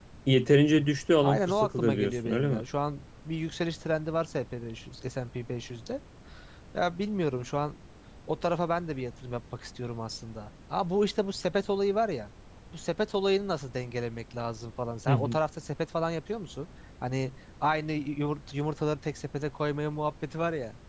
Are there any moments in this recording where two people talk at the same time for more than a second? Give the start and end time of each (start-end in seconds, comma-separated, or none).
1.2-2.6